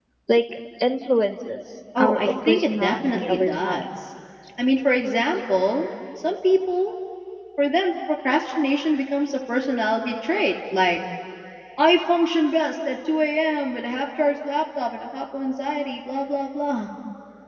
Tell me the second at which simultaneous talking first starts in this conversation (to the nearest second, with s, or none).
2 s